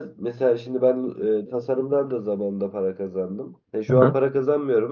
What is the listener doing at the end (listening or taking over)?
listening